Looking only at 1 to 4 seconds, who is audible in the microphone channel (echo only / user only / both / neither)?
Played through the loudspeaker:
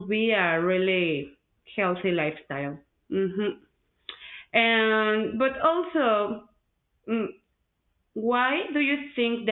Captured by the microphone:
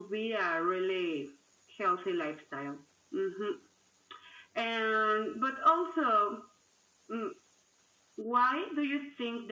echo only